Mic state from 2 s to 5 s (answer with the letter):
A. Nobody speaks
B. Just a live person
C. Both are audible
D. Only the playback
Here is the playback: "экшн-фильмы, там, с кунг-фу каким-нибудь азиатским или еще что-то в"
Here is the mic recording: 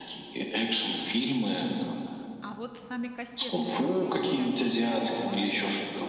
C